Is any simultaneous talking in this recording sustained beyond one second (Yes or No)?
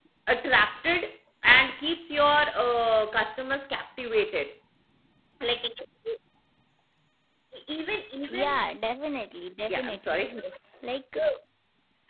No